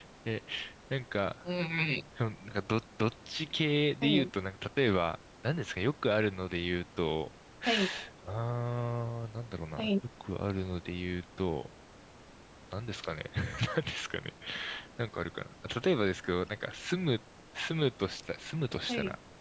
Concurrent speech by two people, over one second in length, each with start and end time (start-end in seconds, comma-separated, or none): none